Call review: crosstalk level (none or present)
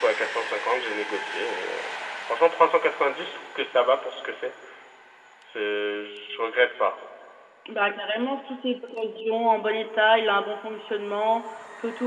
none